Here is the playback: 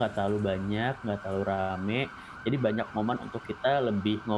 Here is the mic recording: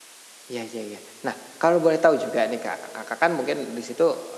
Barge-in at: 0 s

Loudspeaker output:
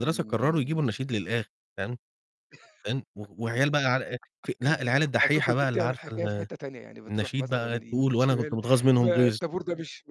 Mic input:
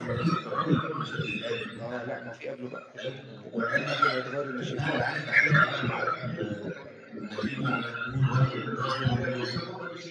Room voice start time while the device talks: 2 s

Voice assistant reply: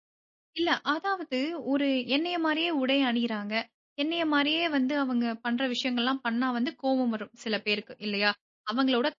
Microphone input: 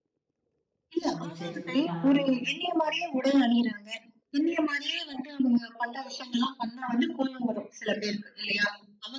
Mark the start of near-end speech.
1 s

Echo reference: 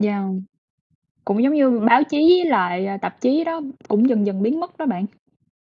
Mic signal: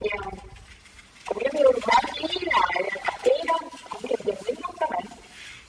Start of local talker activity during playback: none

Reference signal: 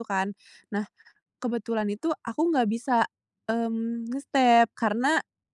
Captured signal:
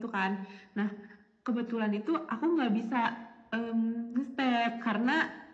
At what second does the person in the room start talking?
none

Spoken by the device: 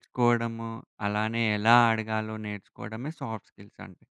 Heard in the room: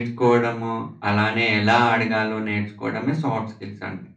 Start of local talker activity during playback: 2 s

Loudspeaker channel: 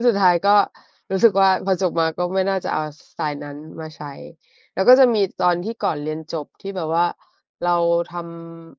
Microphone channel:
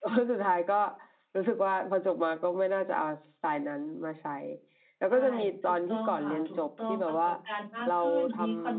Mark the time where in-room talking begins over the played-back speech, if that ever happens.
5 s

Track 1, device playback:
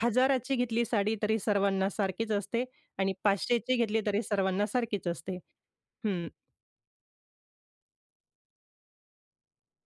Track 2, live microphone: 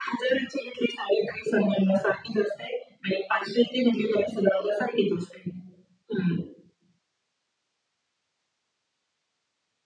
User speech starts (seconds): none

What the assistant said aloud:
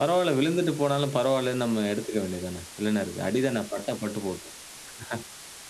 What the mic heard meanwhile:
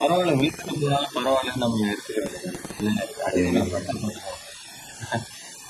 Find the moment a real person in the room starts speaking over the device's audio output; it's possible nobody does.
3 s

